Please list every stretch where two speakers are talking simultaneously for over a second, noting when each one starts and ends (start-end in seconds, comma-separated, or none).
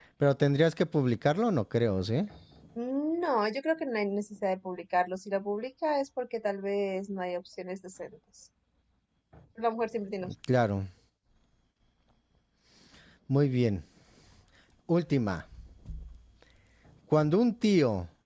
none